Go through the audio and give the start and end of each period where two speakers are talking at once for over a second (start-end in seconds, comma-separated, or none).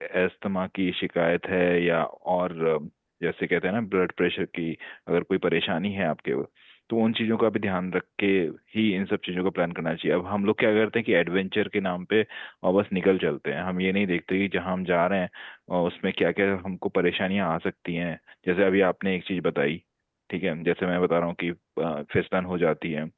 none